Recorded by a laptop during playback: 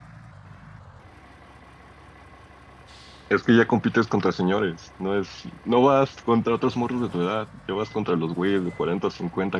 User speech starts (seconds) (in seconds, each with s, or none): 3.3 s